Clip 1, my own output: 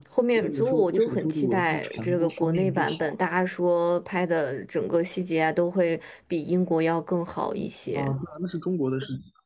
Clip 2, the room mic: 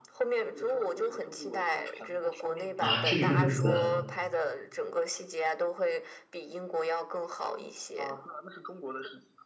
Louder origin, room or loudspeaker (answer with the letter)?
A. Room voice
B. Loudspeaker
A